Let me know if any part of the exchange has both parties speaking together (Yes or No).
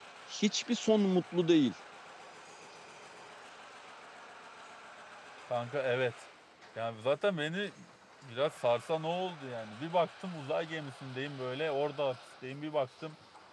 No